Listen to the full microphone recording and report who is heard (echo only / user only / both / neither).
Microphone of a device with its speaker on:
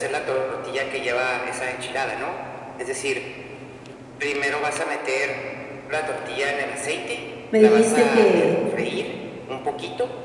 both